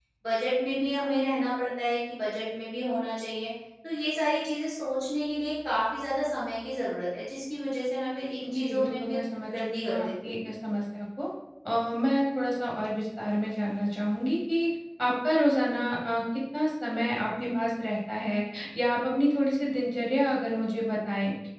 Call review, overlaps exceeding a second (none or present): present